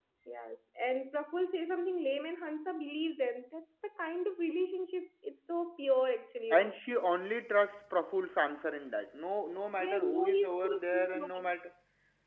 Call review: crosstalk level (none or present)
present